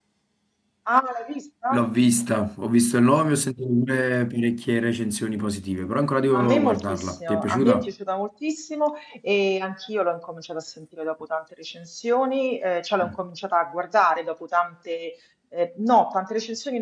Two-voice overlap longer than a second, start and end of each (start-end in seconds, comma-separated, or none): 6.3-7.9